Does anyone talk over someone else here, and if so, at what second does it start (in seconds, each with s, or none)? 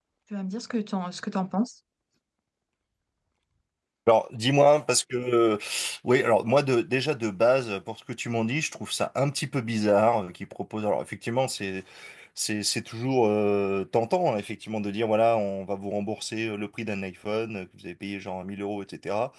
none